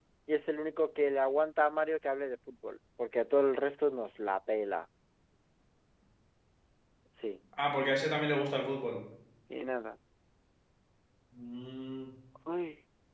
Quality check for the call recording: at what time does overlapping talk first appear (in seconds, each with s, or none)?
none